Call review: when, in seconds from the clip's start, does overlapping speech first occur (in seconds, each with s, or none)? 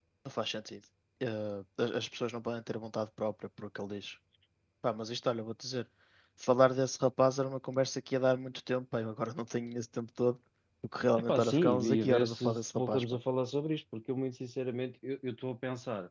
11.2 s